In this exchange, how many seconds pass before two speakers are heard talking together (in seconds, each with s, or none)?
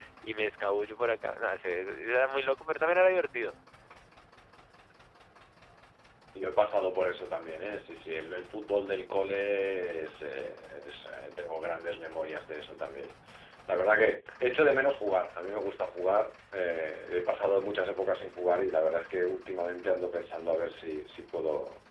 none